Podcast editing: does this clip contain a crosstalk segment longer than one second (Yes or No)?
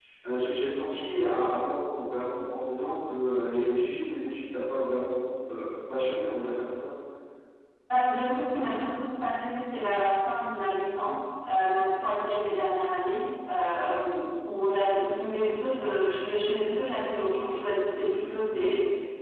No